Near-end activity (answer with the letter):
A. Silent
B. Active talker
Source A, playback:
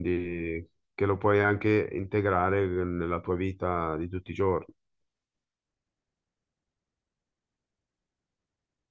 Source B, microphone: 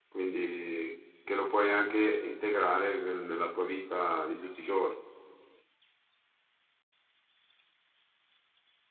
A